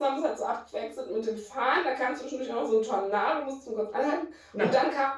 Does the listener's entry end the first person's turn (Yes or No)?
No